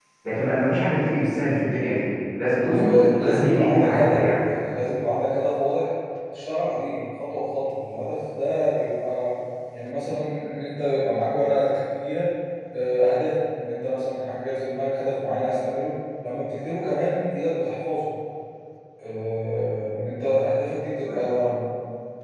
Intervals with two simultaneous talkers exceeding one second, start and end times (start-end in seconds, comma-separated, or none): 2.6-4.2